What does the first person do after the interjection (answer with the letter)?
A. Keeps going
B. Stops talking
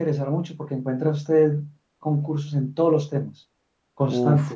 B